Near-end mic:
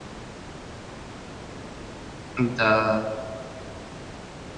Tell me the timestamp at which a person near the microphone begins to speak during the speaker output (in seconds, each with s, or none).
2.4 s